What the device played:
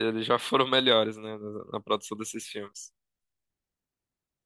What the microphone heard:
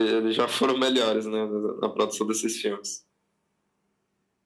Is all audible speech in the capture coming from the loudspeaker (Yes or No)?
Yes